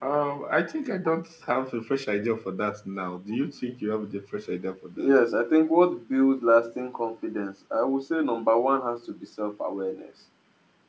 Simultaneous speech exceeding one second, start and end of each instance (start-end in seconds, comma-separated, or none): none